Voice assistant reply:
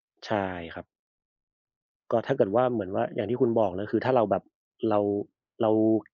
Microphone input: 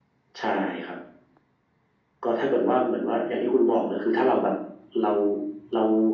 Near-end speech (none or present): none